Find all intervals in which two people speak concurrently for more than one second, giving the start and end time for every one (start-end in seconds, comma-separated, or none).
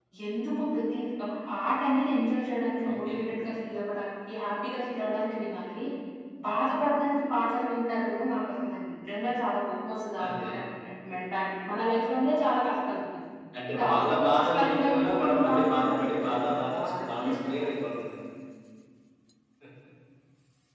13.7-17.4